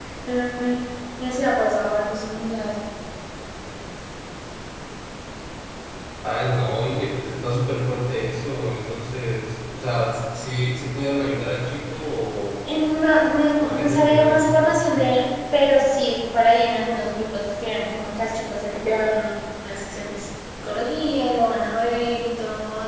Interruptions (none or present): present